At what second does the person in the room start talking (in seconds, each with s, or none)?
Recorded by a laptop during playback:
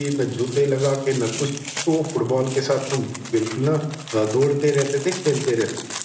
none